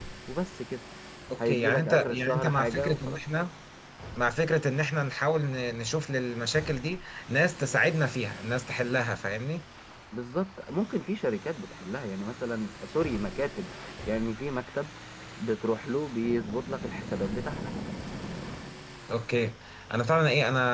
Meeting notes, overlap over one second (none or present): present